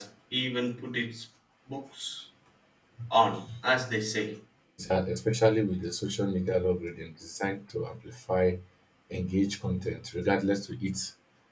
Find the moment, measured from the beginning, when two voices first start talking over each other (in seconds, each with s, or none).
none